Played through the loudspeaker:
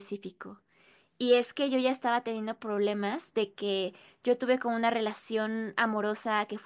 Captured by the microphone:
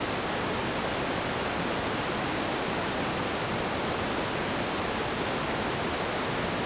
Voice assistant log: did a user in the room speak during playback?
No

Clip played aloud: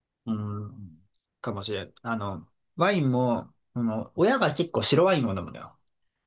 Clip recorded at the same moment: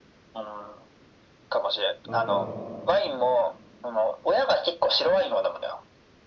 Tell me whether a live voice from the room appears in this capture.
Yes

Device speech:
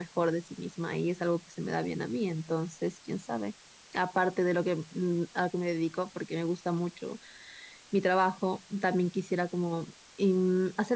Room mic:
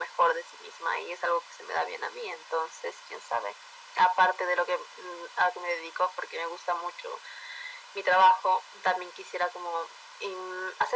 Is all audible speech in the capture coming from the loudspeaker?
Yes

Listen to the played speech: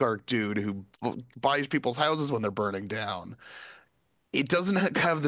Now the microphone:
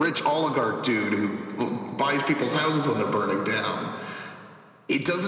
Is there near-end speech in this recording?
No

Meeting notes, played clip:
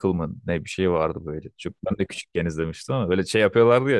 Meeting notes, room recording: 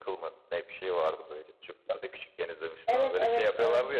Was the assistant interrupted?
Yes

